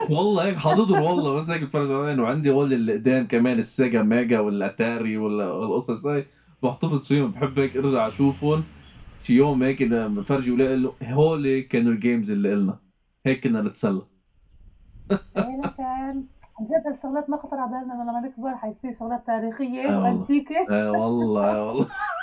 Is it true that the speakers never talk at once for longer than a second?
Yes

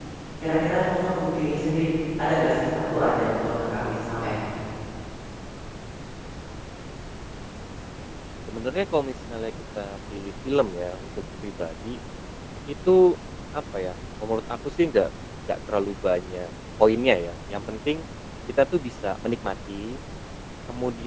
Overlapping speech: No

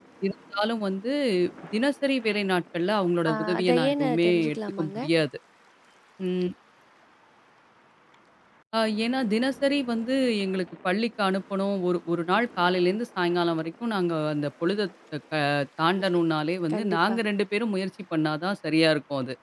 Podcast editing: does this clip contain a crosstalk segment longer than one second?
Yes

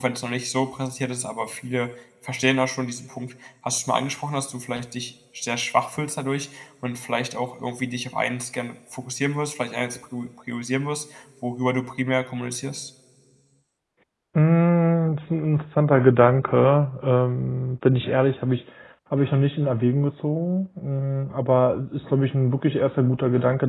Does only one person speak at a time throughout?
Yes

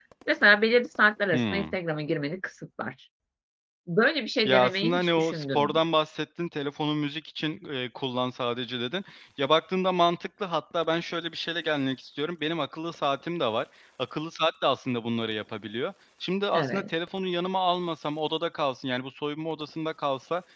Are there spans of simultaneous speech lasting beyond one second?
Yes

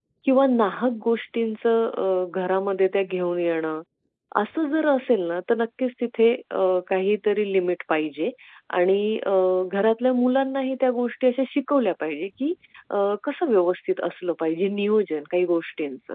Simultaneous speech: No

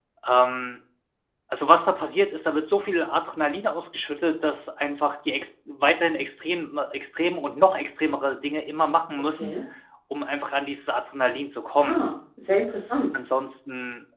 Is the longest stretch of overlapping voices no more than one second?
Yes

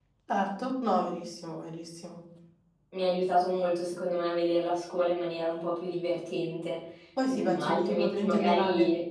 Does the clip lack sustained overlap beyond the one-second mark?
No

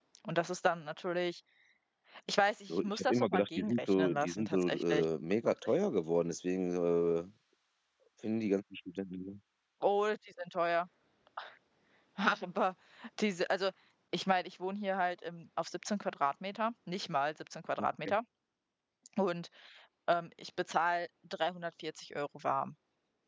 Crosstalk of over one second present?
Yes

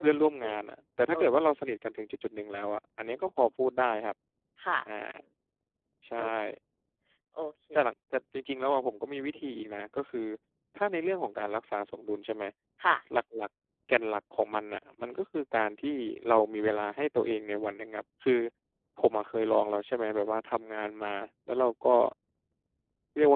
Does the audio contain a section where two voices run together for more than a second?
No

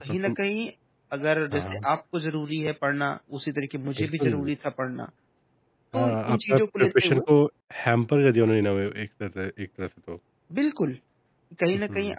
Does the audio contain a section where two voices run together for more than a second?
Yes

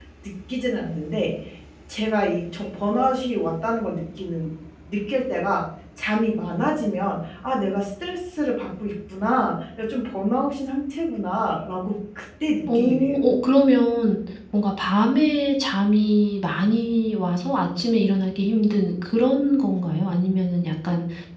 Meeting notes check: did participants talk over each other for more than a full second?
No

